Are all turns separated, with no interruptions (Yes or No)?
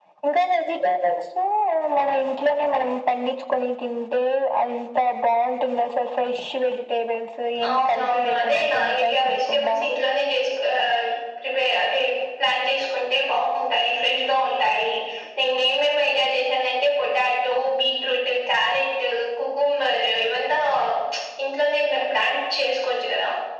No